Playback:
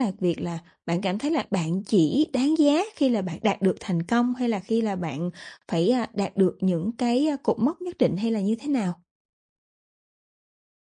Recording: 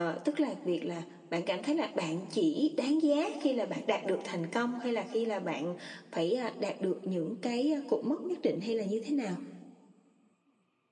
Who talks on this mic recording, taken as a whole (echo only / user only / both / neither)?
echo only